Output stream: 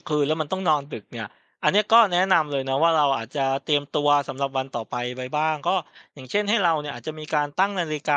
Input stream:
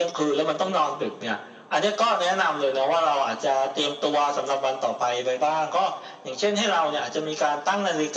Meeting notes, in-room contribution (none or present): none